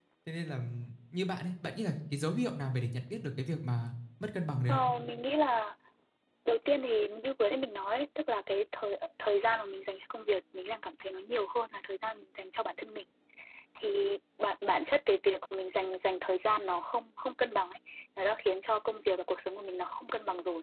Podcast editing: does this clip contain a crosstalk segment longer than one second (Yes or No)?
No